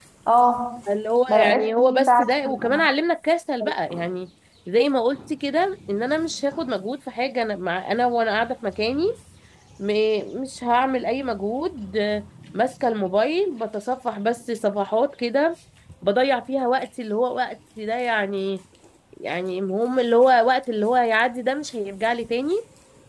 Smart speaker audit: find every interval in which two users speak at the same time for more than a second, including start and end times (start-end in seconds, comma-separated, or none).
1.3-2.9